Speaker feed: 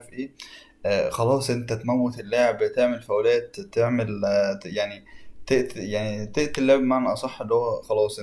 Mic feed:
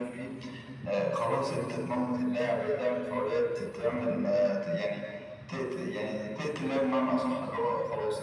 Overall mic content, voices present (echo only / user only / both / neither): echo only